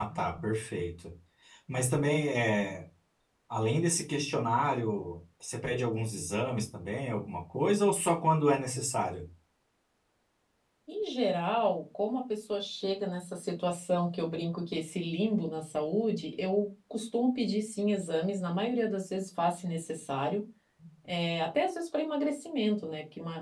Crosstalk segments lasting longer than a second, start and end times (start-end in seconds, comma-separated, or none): none